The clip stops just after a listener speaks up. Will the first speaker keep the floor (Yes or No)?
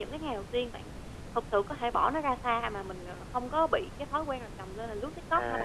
No